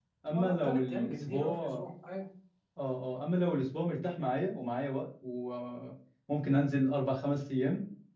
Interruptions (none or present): present